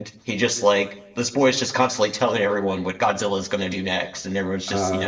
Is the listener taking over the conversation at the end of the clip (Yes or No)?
No